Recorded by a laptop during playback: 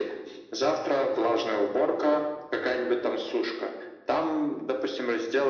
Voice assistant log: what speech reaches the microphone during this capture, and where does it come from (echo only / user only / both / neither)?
echo only